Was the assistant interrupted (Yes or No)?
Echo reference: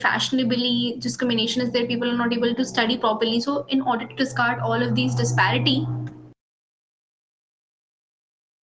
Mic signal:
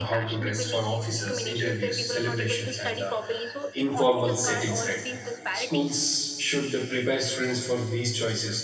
Yes